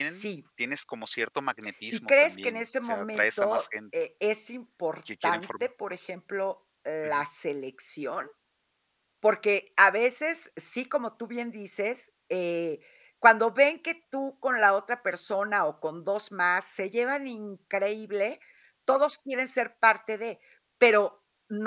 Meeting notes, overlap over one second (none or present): present